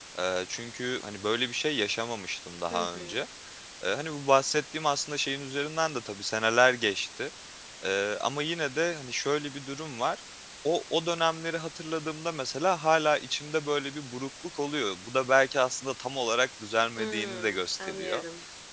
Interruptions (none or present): present